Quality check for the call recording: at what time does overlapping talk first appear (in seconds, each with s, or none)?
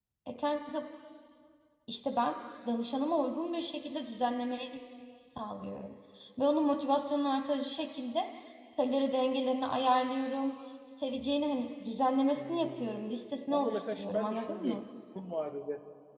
12.4 s